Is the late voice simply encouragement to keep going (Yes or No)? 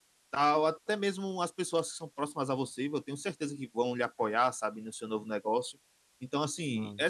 Yes